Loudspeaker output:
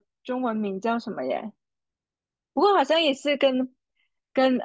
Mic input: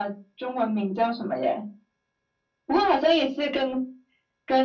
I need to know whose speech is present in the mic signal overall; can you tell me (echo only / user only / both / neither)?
echo only